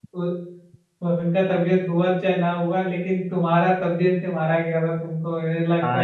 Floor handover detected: Yes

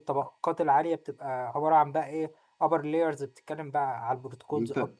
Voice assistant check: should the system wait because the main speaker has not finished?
No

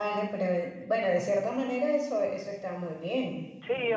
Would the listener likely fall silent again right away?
No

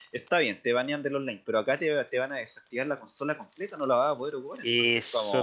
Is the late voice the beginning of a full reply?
Yes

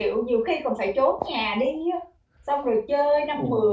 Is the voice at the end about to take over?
No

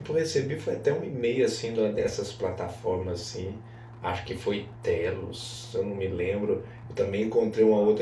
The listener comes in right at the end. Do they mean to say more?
No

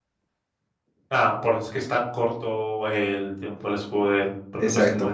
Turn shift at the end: No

